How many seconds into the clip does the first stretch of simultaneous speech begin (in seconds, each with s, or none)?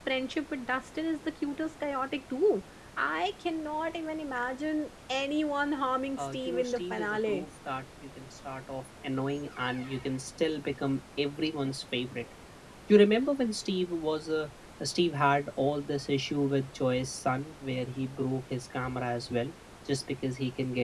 6.2 s